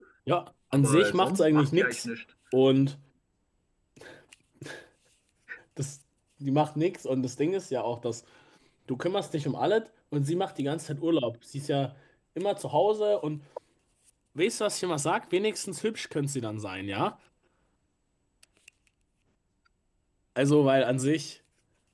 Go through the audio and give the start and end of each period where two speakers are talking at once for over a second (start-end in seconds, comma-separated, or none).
0.7-2.1